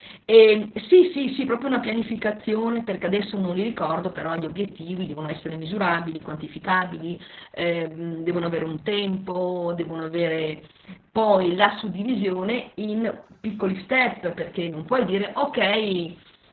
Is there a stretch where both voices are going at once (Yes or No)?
No